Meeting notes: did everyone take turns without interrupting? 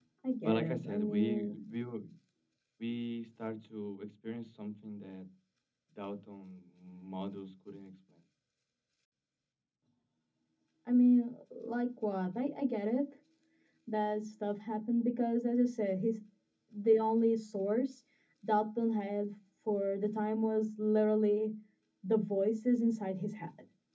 No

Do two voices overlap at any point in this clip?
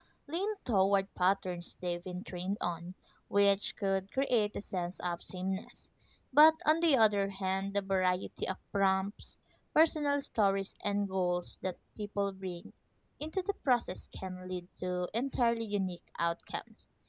No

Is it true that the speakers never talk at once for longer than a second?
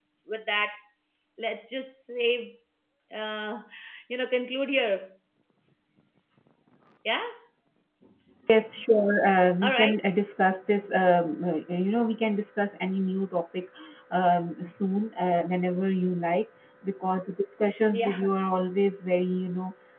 Yes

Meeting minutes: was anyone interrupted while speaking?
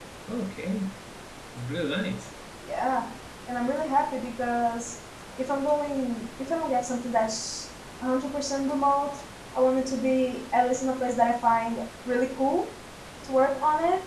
No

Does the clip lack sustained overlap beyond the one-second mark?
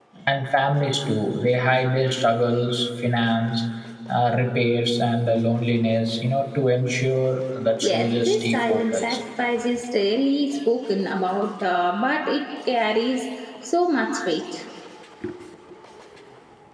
No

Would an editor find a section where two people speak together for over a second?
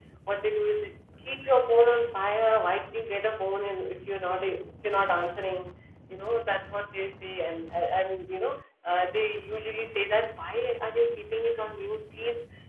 No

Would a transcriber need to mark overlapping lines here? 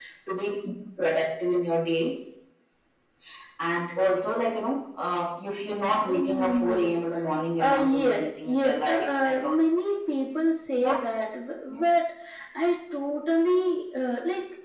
Yes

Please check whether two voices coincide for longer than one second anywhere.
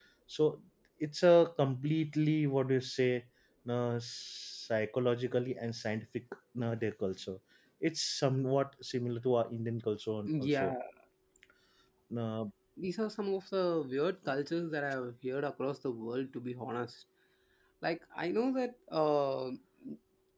No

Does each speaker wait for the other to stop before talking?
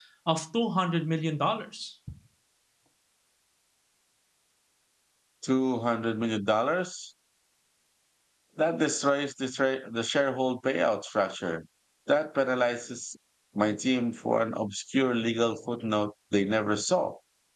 Yes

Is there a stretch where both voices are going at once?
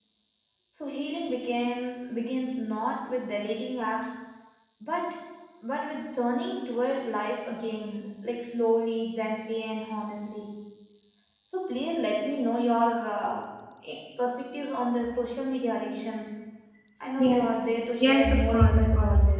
Yes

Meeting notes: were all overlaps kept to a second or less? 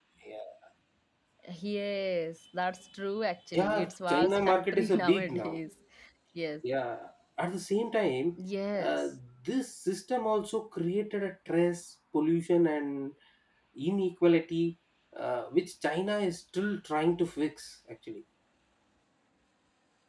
No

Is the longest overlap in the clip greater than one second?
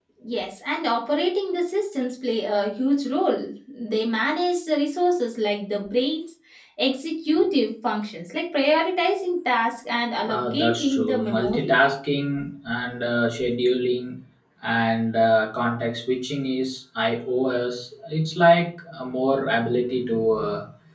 Yes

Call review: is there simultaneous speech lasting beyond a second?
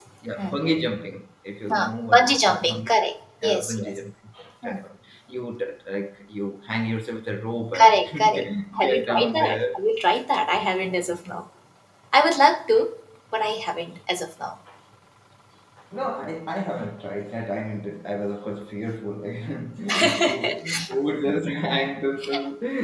Yes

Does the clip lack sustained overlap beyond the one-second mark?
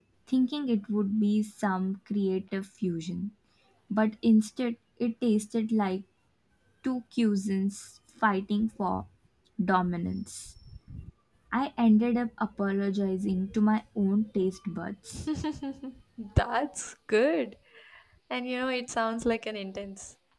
Yes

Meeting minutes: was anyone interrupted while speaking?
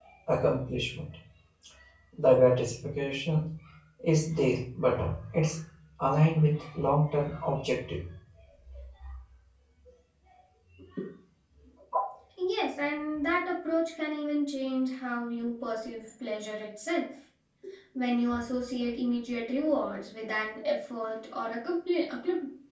No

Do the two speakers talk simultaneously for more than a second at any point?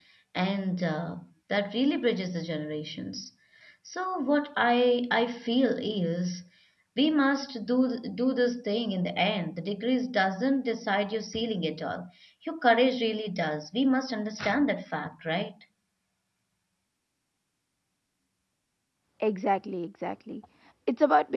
No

